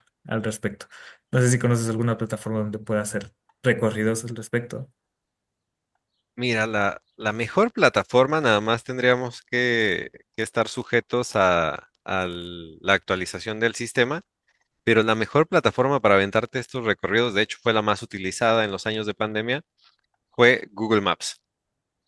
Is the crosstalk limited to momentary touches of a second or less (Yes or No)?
Yes